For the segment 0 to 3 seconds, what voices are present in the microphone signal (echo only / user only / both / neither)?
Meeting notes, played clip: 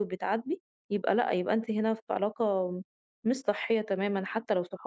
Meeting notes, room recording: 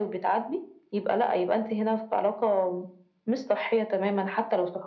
echo only